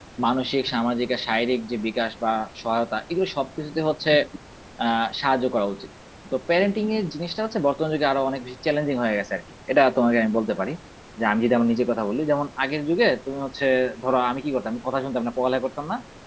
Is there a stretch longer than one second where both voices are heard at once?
No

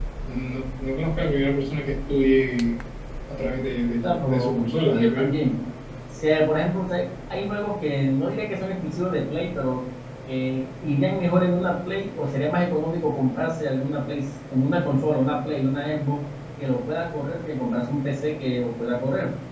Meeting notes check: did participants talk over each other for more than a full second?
Yes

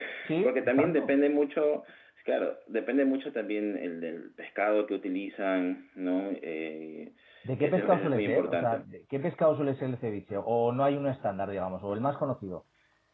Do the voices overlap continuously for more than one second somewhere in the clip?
Yes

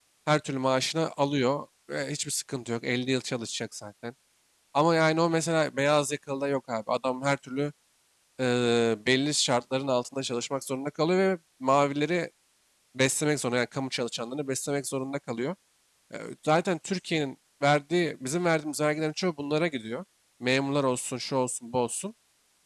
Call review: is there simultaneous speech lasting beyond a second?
No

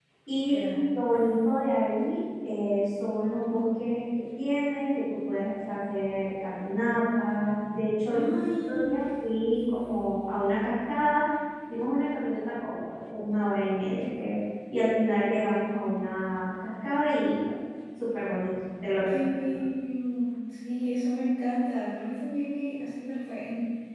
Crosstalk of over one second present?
Yes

